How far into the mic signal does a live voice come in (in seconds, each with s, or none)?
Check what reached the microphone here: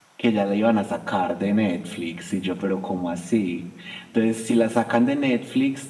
none